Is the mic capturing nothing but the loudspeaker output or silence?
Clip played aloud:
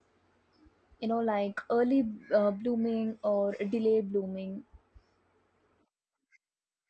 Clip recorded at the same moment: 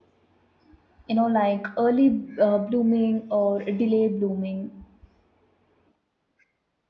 Yes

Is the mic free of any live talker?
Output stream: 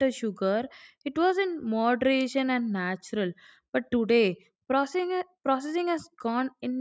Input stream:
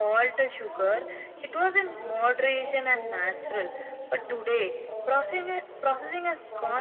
No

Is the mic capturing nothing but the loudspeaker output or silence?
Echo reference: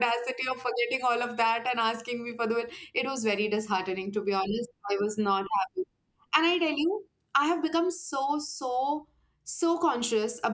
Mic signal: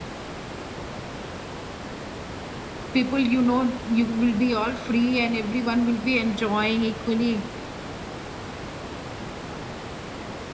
No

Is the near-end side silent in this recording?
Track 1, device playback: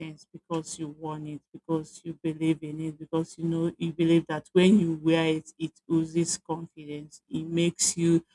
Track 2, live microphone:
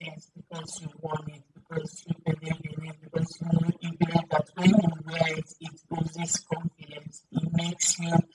Yes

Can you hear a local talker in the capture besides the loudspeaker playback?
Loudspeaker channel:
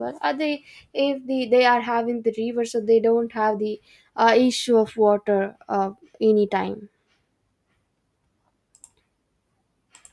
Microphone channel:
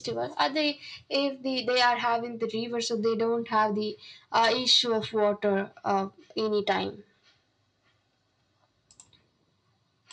No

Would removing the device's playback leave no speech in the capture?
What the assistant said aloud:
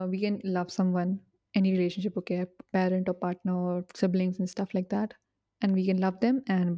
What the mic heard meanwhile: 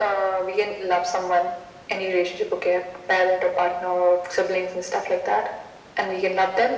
Yes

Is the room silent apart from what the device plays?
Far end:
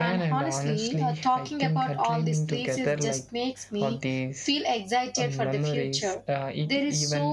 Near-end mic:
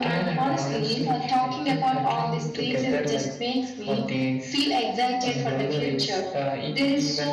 Yes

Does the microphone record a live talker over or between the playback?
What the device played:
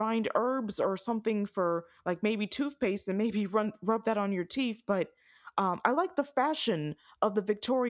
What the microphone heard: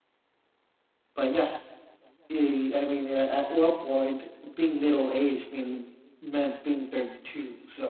Yes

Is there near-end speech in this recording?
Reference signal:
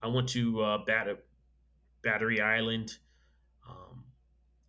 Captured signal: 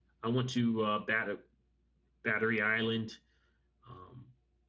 No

